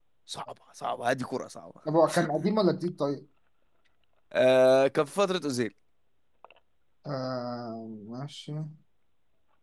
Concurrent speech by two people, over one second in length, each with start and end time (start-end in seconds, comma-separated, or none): none